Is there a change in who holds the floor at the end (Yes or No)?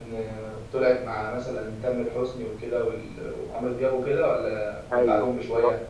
Yes